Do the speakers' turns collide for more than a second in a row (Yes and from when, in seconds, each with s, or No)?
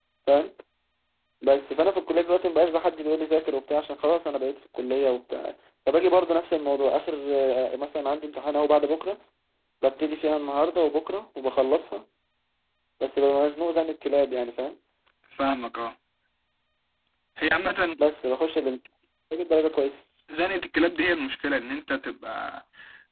No